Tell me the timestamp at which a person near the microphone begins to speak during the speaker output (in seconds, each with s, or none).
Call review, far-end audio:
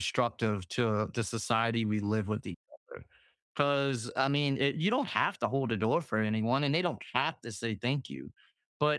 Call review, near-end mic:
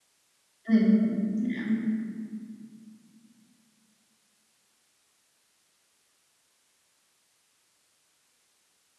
0.6 s